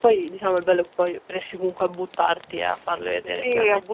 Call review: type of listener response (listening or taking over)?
taking over